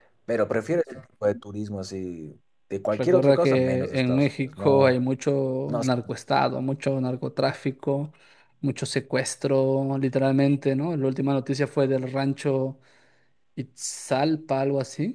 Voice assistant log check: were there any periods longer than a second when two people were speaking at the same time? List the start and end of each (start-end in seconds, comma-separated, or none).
3.0-5.0